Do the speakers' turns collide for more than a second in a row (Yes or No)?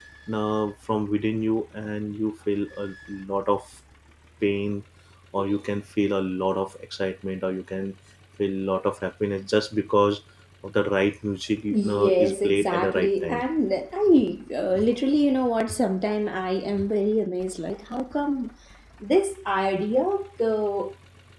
Yes